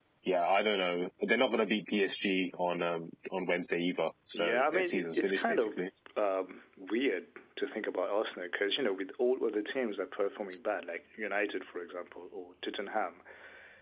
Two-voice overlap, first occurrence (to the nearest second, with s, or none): 4 s